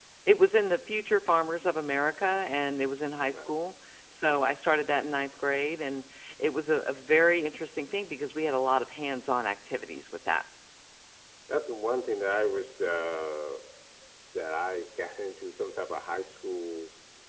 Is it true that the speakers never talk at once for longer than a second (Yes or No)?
Yes